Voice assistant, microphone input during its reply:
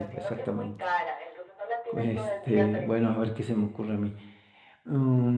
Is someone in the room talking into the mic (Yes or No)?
Yes